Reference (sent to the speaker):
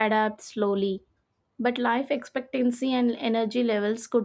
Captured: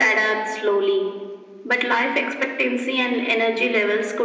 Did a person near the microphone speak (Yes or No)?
No